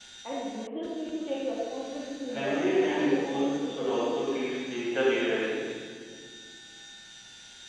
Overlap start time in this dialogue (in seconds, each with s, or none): 2.3 s